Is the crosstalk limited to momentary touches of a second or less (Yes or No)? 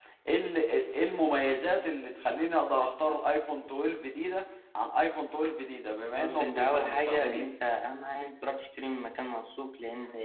No